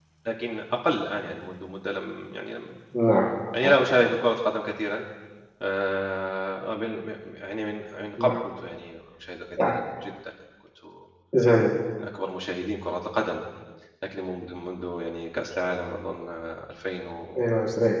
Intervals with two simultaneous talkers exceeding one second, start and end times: none

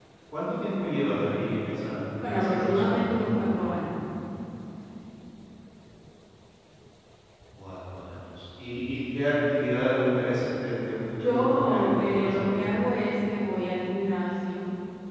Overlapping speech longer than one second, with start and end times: 2.2-3.6, 11.2-12.6

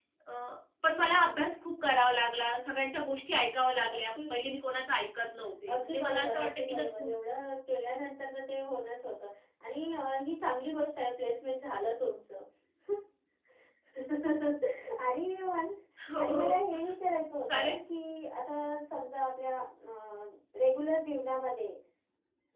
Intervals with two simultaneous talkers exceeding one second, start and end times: 5.7-7.1

